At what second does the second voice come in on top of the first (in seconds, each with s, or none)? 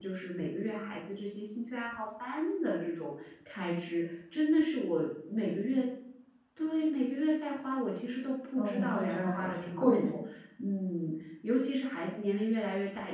8.6 s